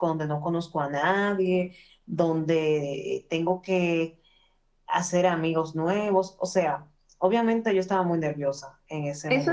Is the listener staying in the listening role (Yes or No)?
No